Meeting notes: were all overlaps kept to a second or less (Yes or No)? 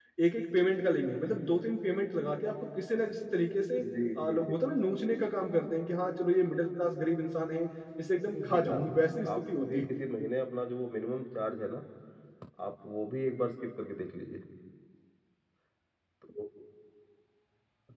No